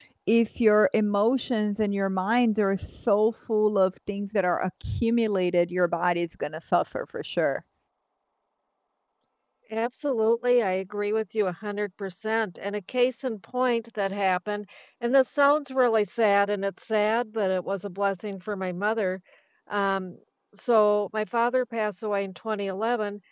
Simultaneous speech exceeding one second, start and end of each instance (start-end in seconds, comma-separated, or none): none